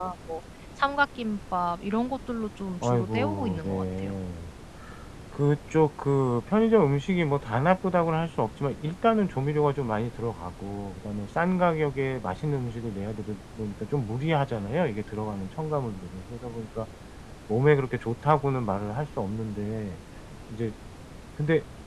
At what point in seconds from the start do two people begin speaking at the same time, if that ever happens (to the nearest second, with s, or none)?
3 s